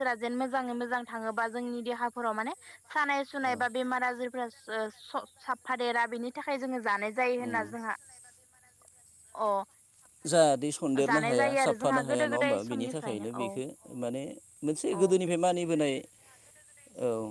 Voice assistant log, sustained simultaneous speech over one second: present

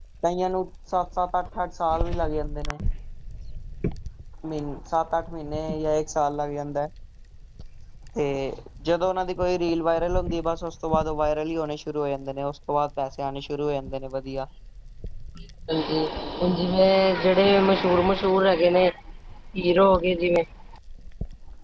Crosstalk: none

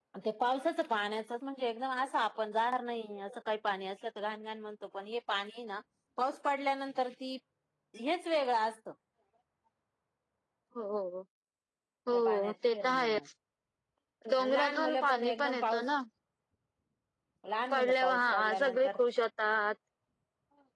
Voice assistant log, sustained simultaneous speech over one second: present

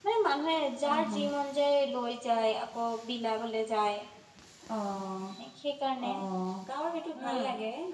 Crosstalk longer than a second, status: none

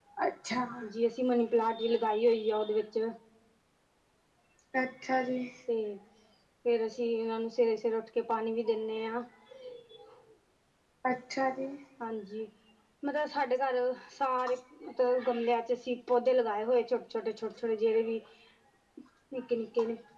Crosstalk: none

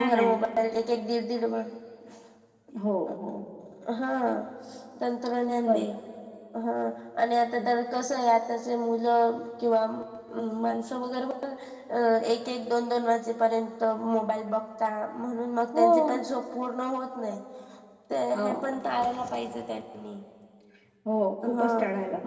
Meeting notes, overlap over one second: none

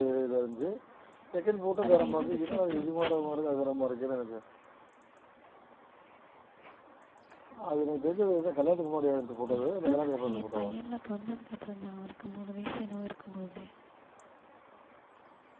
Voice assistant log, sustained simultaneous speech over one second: present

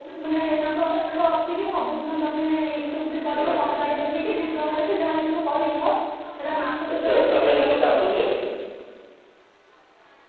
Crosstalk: present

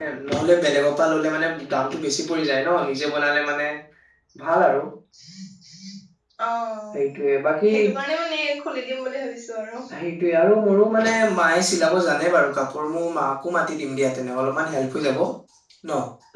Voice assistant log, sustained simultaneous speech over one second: none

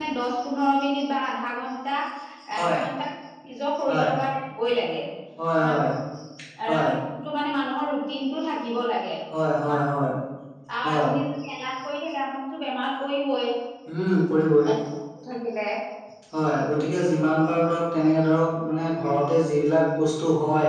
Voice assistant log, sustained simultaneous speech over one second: none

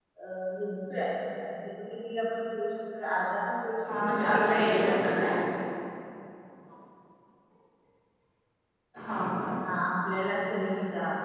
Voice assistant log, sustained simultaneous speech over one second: present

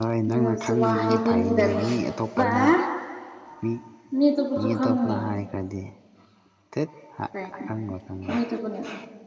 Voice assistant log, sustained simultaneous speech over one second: present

